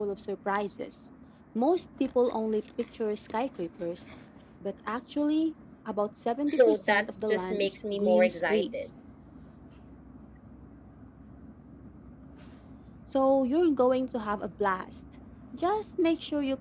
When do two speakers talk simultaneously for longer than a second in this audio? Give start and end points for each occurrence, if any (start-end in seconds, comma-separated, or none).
6.5-8.9